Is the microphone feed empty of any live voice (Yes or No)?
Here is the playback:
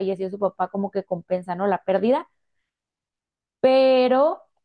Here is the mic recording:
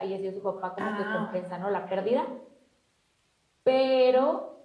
No